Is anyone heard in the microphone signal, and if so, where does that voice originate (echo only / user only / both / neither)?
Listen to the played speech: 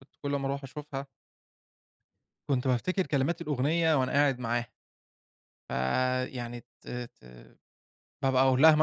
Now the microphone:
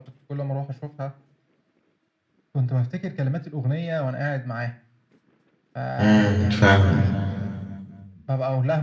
both